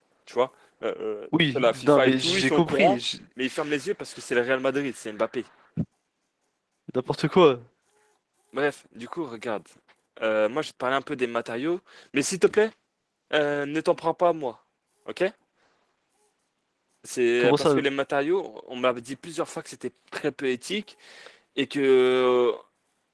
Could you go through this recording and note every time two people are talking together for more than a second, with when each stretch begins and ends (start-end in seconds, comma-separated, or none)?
1.6-3.0